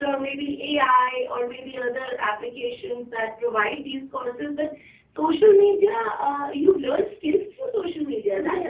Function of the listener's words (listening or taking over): taking over